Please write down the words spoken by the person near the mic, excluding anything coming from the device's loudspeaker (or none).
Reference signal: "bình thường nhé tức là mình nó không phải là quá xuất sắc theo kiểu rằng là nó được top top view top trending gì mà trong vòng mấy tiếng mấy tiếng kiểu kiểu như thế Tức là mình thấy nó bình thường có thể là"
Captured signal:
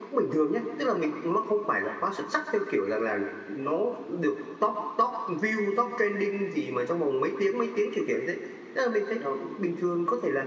none